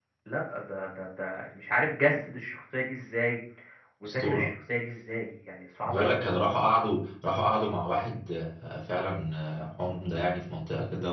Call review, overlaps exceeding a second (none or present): none